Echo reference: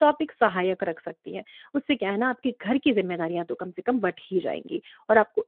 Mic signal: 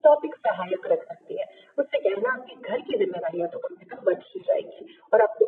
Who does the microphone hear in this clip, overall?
echo only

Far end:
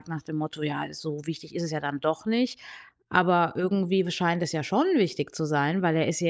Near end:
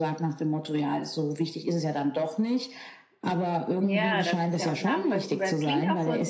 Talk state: both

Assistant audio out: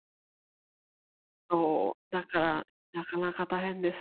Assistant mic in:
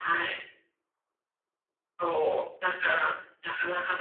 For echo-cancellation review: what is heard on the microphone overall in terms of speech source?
echo only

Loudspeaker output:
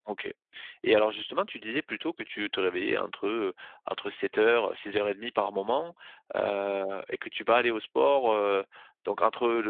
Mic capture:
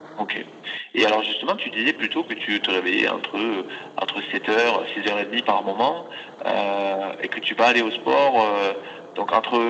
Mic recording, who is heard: echo only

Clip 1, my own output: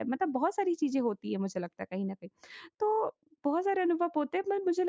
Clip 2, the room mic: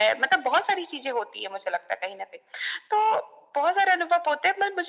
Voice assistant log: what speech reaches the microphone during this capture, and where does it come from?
echo only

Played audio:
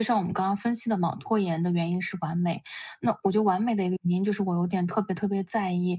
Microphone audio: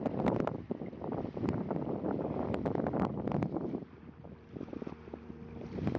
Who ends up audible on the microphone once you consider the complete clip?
neither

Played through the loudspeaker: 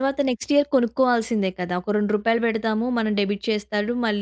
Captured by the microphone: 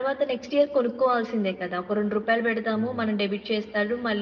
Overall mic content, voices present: both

